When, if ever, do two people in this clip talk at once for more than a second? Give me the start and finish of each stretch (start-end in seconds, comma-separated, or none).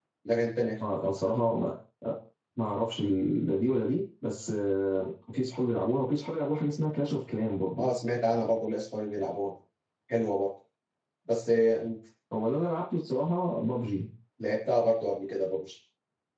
none